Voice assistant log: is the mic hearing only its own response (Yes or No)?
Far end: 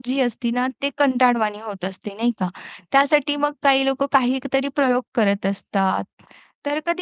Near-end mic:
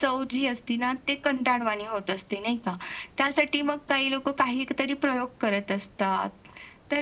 Yes